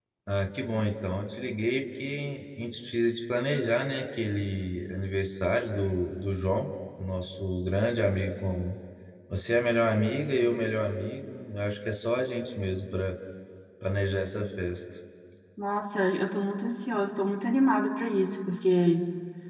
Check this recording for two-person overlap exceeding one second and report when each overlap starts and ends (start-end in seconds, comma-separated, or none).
none